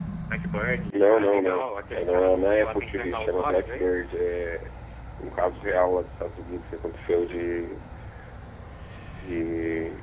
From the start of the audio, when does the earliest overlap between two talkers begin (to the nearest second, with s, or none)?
1 s